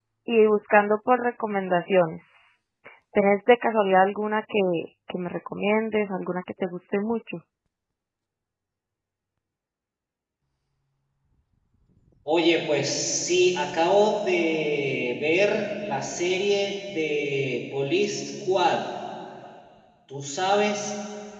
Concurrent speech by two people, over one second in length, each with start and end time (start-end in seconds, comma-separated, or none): none